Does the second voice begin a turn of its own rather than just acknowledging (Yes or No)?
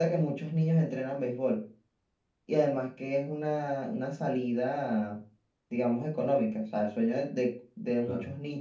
No